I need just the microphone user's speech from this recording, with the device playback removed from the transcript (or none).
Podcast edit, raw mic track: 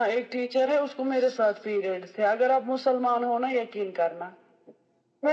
none